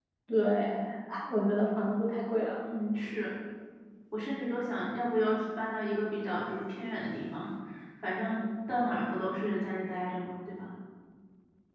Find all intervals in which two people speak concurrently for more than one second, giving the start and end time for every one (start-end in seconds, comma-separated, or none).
none